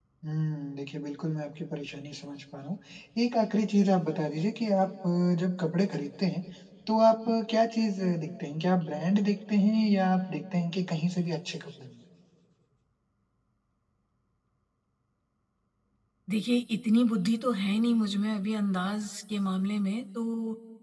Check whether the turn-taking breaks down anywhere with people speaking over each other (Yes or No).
No